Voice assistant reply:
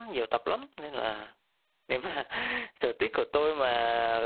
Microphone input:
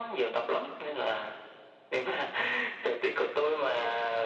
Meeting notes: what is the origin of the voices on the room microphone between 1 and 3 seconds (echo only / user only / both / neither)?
echo only